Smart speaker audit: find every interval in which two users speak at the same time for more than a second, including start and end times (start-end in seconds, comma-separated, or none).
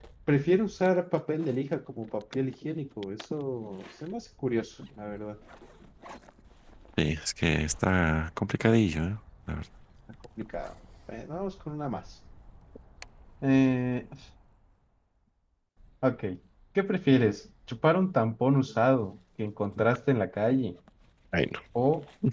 none